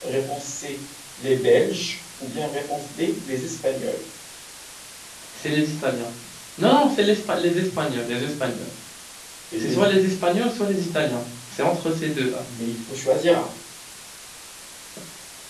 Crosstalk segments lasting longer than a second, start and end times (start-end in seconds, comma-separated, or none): none